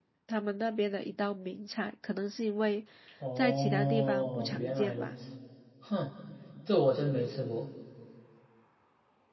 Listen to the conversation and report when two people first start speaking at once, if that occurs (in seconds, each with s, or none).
3.4 s